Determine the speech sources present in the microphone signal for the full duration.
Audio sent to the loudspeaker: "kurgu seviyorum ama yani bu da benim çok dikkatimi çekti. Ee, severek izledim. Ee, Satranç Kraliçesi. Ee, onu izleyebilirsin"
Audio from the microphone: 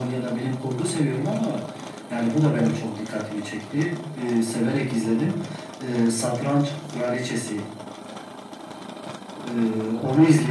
echo only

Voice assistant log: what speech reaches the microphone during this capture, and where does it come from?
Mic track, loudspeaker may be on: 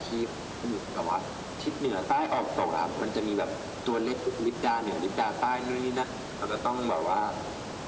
echo only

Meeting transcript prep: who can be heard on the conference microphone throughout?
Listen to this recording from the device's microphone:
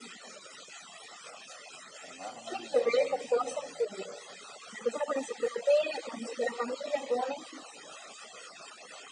both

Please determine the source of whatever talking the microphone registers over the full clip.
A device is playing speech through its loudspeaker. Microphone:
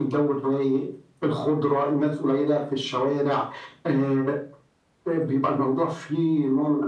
echo only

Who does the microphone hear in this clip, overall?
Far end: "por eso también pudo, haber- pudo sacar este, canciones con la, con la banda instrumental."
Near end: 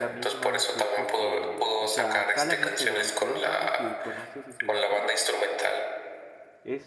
both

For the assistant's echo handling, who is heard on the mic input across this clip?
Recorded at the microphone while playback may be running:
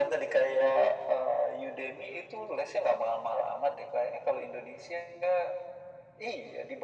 echo only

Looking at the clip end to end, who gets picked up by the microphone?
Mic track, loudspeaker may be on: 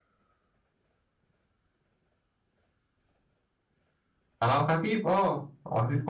user only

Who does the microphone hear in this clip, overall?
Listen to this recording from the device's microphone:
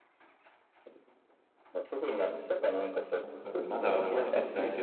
both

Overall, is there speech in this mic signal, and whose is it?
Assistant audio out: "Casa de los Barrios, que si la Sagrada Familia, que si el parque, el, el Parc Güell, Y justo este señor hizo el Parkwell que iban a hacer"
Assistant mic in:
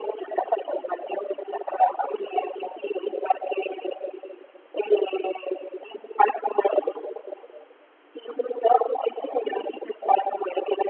echo only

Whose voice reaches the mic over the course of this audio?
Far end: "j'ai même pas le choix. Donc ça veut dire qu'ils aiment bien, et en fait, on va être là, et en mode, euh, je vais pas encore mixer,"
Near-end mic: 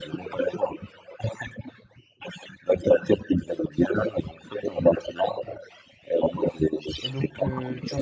both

